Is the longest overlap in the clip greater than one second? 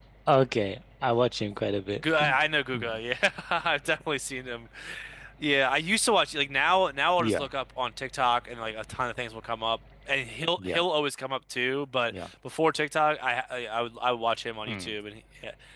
No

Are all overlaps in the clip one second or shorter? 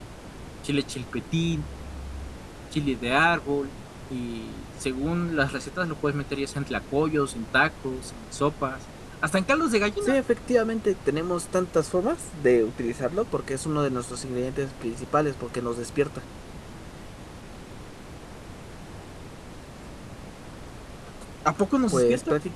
Yes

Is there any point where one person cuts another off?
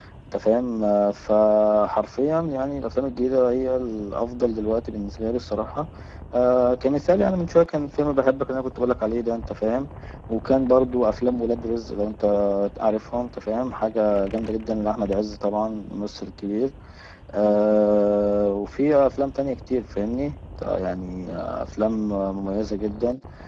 No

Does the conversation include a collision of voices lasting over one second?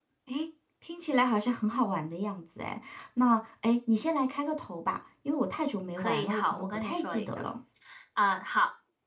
Yes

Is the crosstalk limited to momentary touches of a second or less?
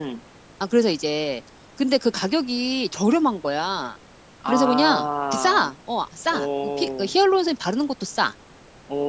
No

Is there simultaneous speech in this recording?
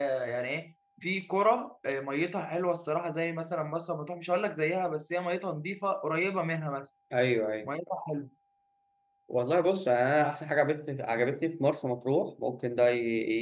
No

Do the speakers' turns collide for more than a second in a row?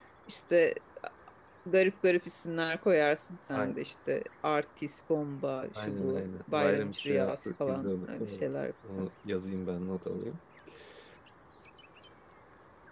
Yes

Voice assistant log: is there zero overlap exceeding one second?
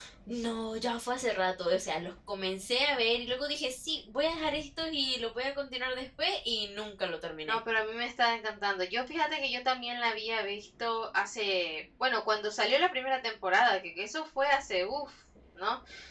Yes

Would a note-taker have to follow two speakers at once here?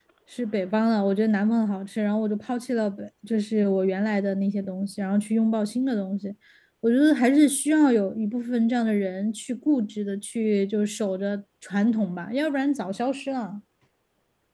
No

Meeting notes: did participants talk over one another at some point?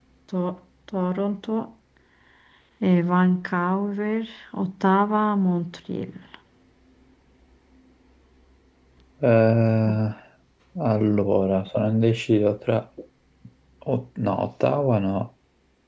No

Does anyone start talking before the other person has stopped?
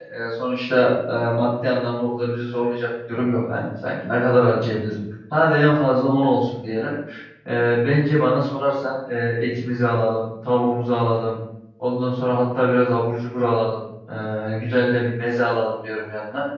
No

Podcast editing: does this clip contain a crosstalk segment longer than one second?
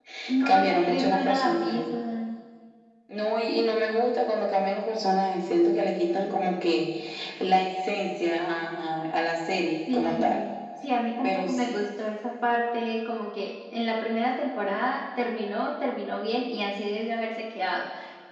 Yes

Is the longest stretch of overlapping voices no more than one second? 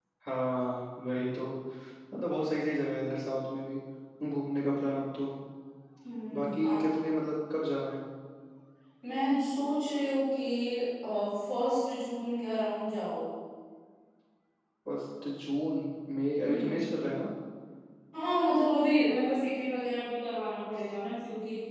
Yes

